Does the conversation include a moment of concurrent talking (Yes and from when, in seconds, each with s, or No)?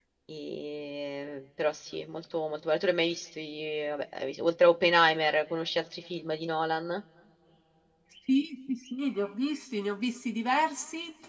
No